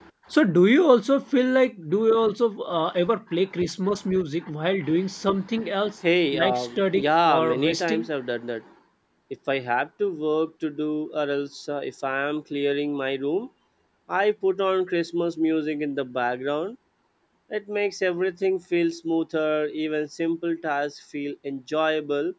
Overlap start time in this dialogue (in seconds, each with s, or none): 6.3 s